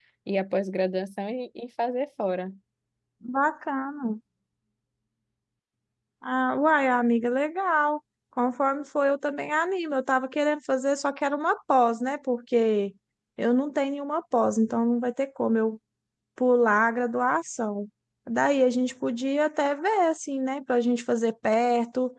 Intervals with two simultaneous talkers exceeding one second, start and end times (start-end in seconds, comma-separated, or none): none